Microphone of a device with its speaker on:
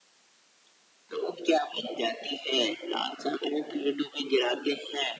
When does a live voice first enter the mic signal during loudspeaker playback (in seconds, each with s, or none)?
none